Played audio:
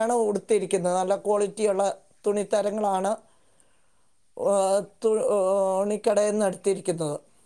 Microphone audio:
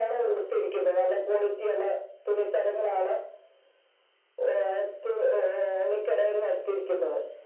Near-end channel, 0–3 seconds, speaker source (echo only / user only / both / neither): echo only